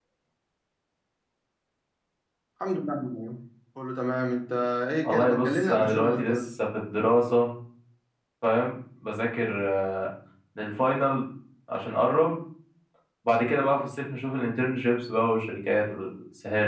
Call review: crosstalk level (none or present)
present